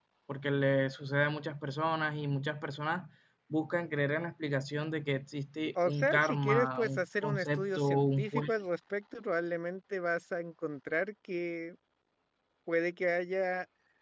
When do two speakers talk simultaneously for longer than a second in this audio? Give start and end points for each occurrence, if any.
5.8-8.5

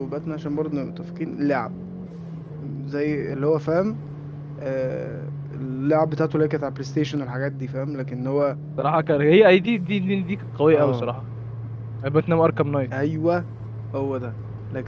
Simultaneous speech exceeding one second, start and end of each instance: none

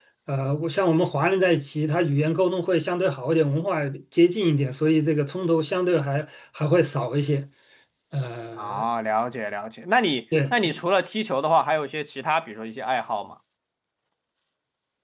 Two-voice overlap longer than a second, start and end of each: none

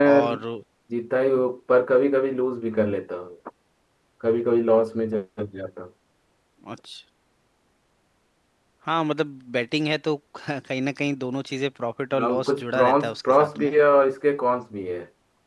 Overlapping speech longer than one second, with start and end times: 12.2-13.7

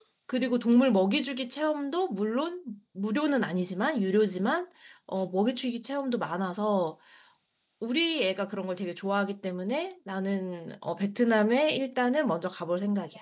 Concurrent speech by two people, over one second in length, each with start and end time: none

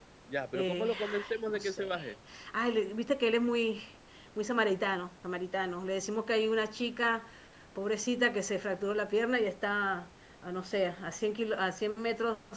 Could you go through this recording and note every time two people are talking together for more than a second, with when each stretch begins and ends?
0.5-2.0

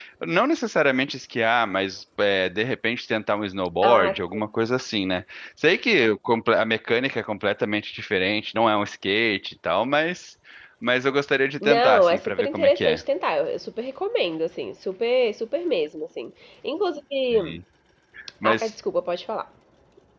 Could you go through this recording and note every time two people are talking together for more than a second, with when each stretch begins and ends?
11.6-13.0

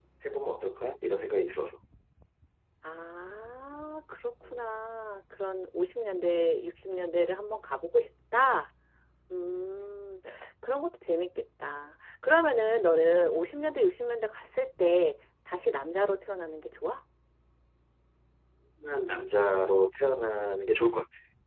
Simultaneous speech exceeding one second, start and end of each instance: none

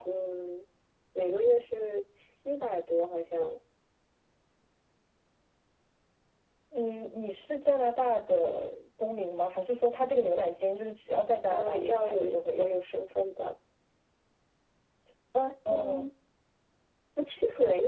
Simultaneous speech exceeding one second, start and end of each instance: 11.5-12.7

